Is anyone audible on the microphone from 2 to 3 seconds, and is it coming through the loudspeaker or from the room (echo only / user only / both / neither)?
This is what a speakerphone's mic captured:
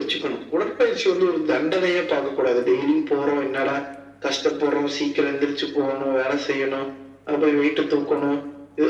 echo only